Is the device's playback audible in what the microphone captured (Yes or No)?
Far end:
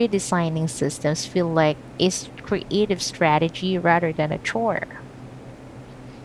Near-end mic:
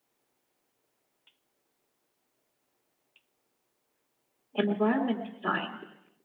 No